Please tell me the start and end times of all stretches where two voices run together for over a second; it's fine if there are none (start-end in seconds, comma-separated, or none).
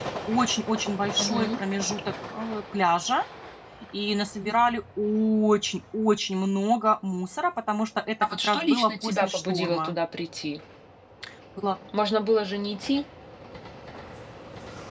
8.2-9.9